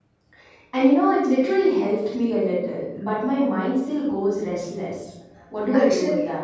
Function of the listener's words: taking over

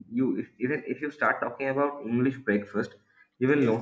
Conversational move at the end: listening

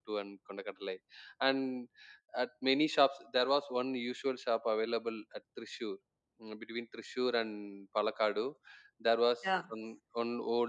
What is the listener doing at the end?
listening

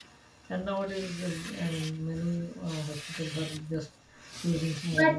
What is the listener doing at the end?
taking over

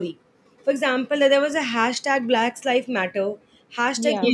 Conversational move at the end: listening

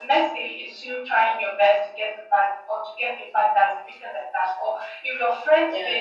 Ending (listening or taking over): listening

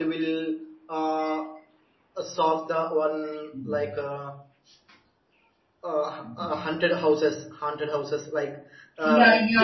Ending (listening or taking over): taking over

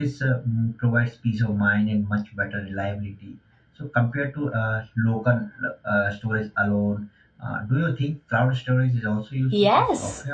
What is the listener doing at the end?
taking over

